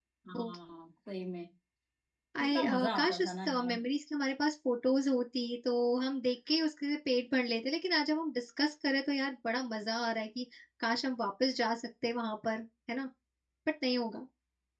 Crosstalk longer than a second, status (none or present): present